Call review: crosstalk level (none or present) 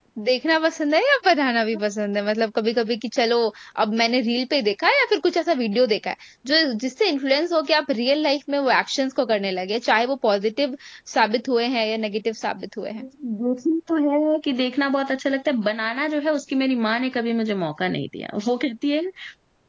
none